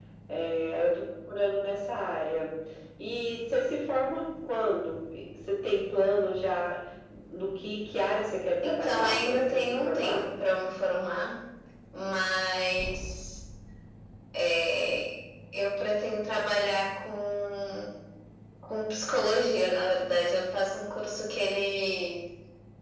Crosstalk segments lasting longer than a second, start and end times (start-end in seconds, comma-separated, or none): 8.6-10.2